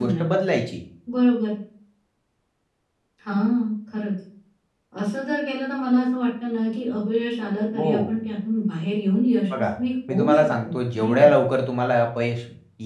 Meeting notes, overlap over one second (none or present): present